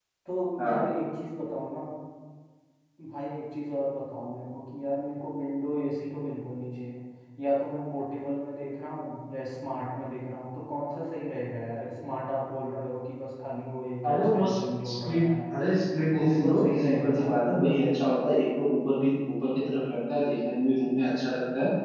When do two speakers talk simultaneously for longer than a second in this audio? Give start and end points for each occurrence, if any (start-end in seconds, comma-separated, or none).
14.1-15.3, 16.0-17.3